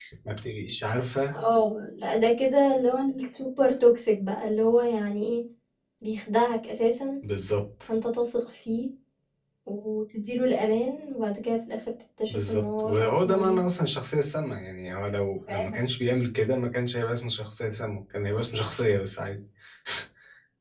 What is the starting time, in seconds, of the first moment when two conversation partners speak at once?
12.3 s

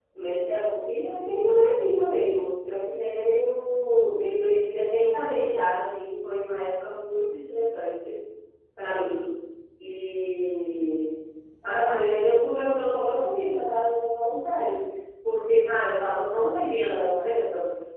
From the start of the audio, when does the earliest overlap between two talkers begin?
none

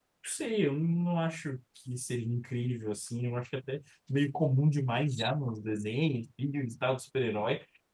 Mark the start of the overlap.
none

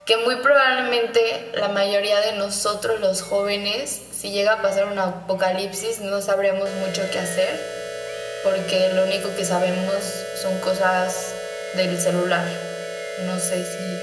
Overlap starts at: none

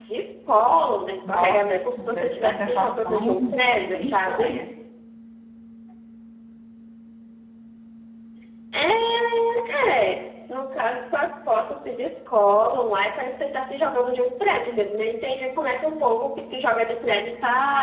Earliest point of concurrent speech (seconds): 1.3 s

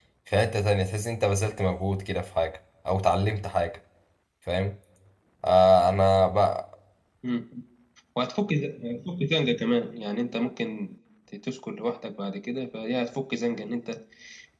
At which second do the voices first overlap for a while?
none

